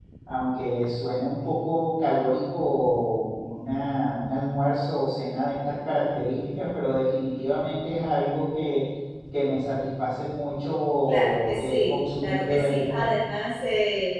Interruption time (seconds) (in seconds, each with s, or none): 11.1 s